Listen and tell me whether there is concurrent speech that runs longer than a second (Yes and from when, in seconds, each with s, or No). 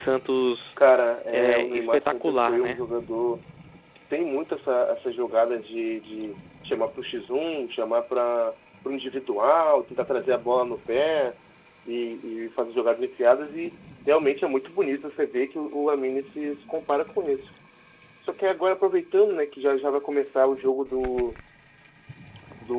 Yes, from 1.3 s